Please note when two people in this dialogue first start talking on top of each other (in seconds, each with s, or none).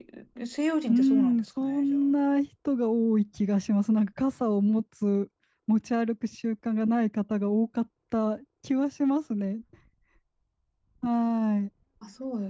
0.9 s